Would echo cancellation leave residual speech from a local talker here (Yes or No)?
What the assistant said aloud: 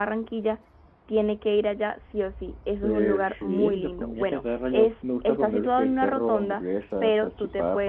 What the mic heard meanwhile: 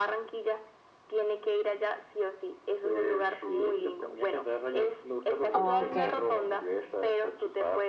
Yes